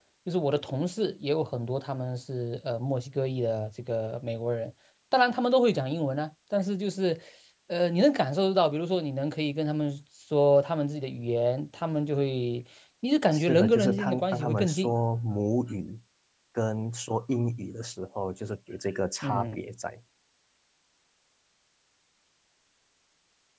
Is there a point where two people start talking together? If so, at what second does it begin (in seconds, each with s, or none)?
13.3 s